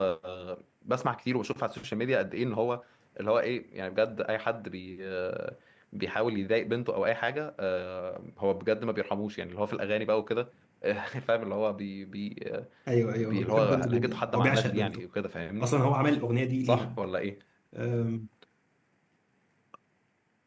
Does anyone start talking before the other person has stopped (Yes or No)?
Yes